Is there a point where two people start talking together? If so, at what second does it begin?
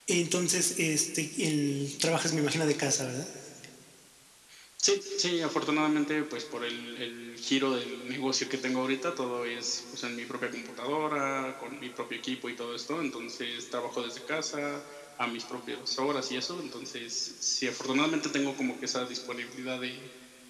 none

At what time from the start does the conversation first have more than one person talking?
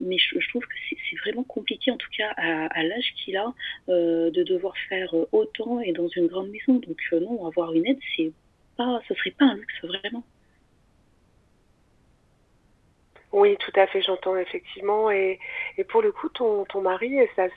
none

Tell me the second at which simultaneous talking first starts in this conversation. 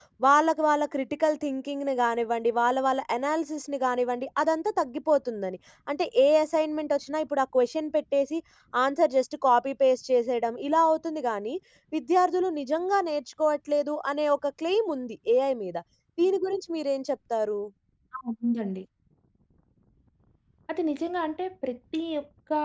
none

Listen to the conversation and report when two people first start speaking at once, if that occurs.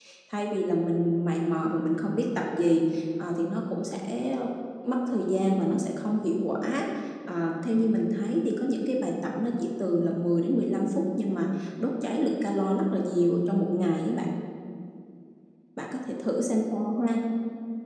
none

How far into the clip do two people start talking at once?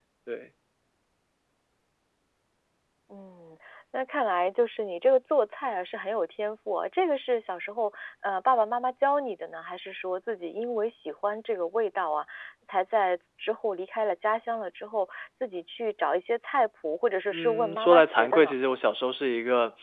17.3 s

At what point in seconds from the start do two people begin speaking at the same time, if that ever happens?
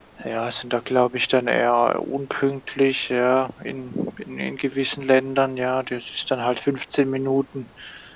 none

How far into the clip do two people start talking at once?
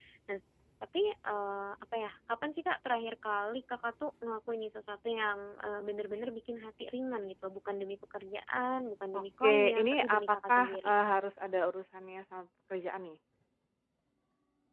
9.1 s

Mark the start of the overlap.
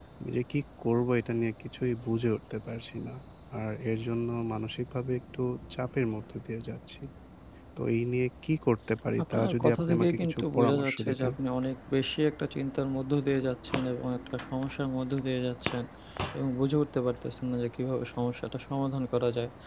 9.3 s

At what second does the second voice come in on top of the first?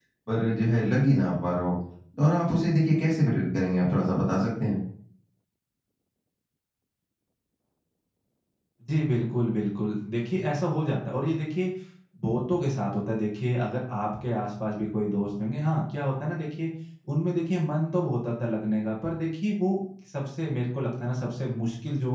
none

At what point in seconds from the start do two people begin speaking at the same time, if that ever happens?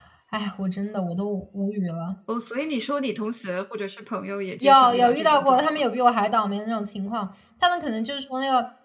4.6 s

